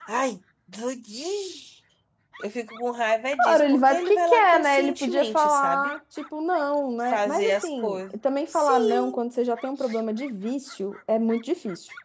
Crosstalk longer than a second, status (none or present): present